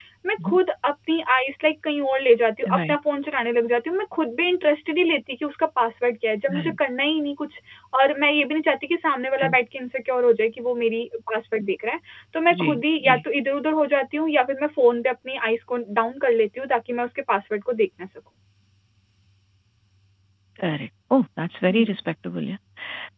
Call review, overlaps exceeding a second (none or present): none